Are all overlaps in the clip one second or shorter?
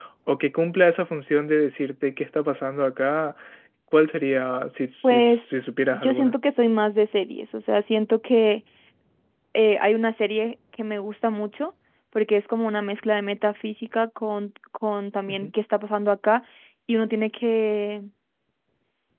Yes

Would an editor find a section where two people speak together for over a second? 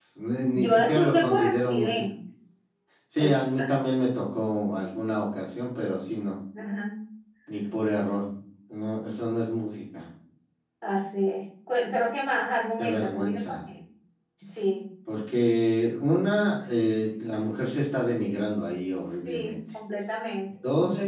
Yes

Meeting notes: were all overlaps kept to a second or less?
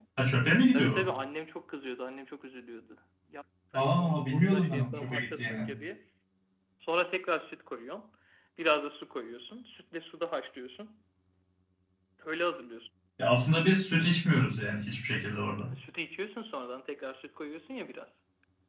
No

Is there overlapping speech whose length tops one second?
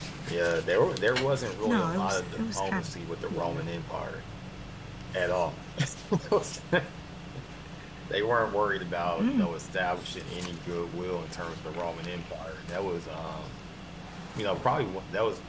Yes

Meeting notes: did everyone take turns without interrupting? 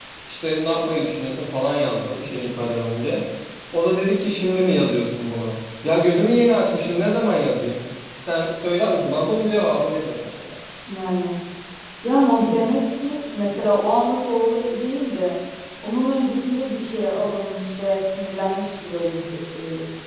Yes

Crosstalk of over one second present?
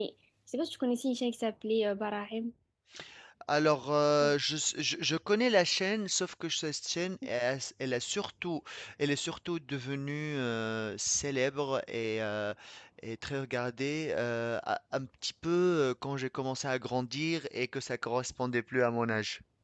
No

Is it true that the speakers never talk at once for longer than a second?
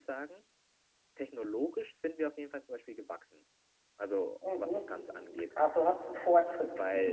Yes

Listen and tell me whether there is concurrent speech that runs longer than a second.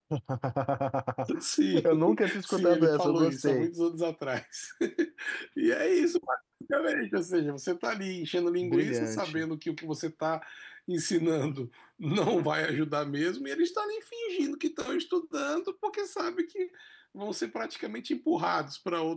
Yes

